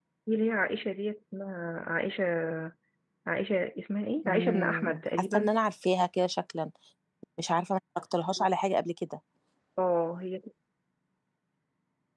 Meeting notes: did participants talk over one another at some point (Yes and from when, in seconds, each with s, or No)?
Yes, from 4.2 s